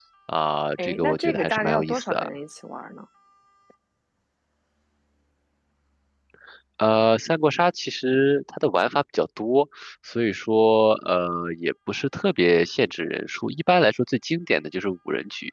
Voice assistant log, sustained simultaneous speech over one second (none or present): present